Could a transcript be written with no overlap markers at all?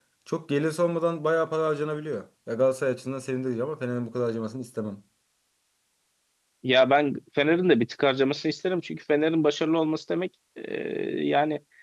Yes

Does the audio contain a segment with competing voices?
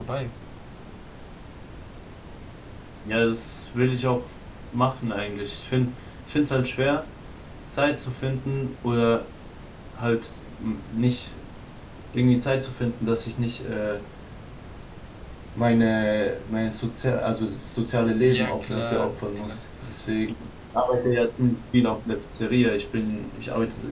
Yes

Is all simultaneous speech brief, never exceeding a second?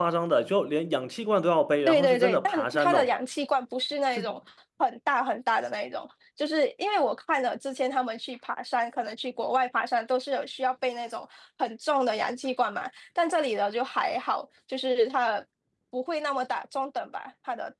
No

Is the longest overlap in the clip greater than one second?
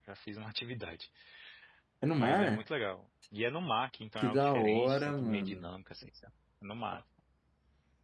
Yes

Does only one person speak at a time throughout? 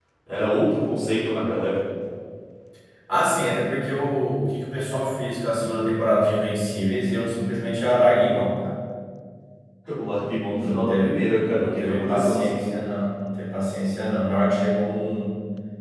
No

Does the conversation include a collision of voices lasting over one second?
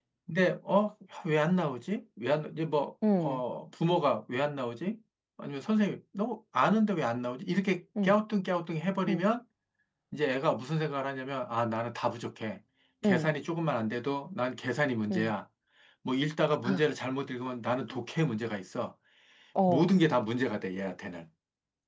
No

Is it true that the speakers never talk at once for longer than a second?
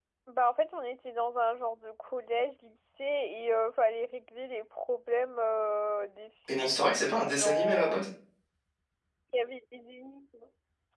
No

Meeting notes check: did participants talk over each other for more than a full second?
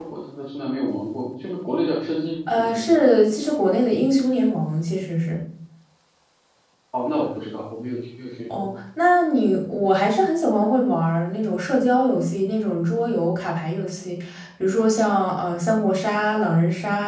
No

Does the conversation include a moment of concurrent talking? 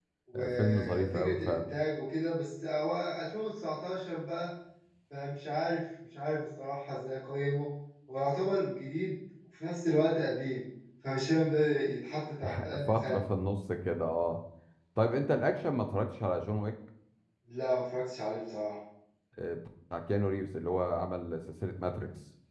Yes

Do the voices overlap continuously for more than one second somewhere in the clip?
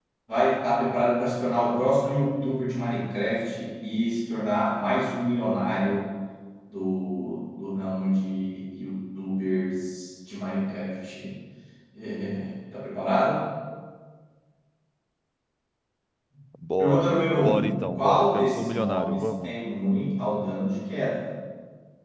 Yes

